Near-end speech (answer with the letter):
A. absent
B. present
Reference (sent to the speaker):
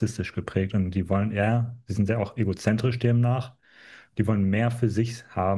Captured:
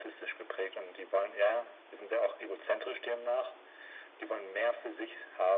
A